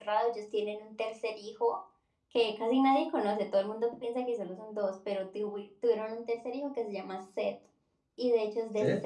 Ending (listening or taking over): listening